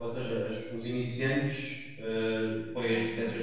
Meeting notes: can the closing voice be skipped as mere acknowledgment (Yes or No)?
Yes